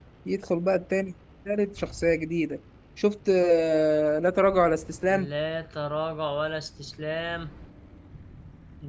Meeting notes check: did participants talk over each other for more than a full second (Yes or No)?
No